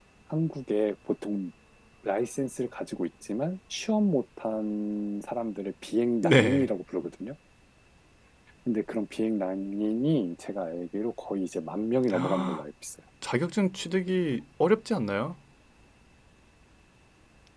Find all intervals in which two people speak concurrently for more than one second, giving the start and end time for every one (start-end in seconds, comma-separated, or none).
none